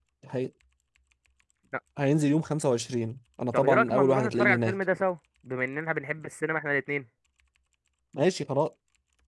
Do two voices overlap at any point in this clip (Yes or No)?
Yes